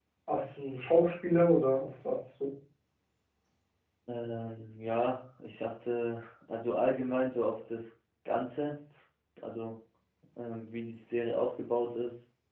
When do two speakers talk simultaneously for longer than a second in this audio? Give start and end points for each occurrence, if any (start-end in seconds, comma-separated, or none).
none